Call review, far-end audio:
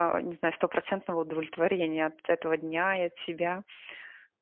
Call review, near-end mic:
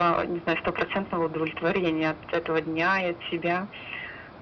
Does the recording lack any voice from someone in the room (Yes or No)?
Yes